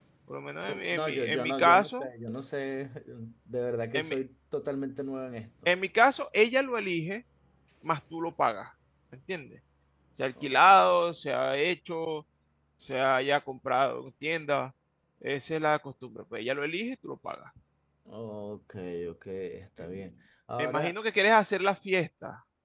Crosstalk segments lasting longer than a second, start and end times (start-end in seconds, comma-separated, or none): 0.6-2.1